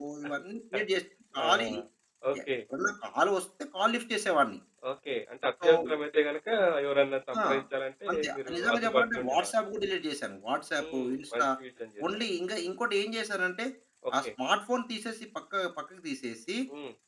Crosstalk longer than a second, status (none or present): present